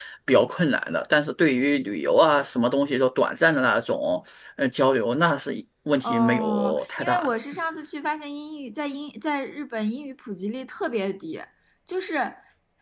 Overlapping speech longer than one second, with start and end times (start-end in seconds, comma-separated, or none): 6.0-7.3